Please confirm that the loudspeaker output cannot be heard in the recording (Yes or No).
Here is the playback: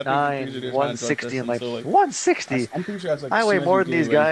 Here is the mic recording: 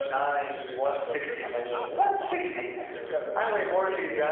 No